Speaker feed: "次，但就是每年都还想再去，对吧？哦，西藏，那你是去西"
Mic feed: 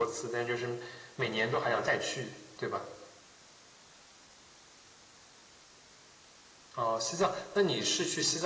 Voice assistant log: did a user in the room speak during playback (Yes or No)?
No